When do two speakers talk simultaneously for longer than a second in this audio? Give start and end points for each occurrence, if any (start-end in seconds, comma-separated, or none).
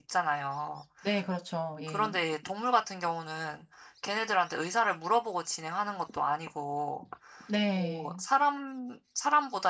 none